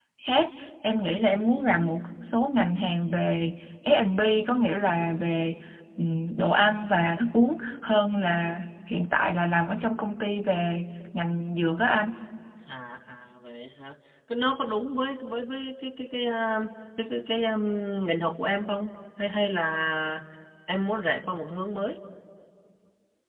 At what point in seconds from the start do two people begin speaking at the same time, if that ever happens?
none

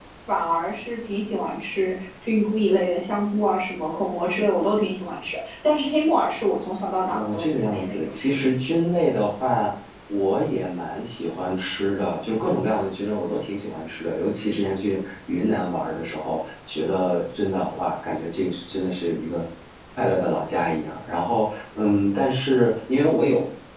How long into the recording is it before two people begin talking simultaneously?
7.1 s

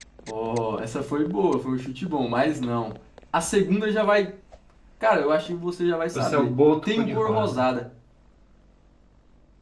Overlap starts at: 6.1 s

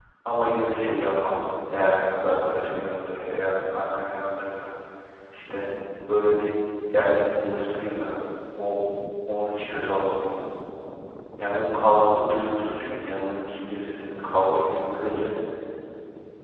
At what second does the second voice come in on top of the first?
none

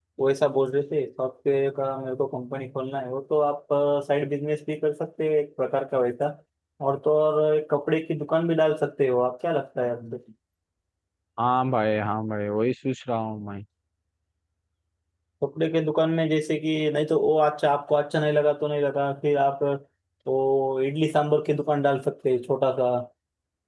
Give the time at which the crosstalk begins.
none

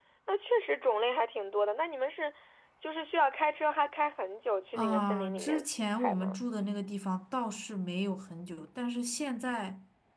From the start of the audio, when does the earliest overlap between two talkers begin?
4.7 s

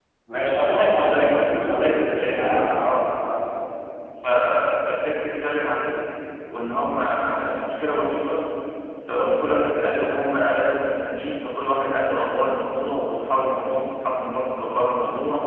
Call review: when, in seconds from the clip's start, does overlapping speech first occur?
0.6 s

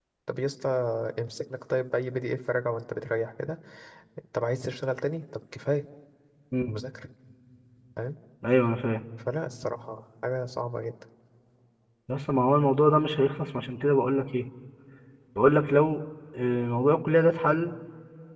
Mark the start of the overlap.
none

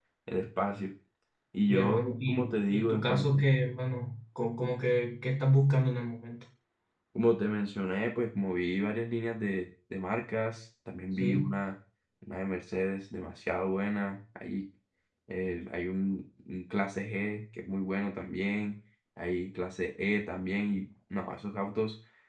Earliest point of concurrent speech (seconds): 1.7 s

